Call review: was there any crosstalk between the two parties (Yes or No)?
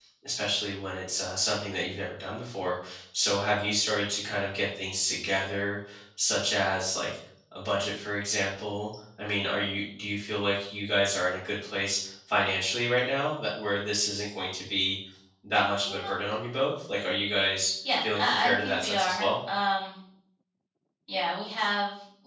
Yes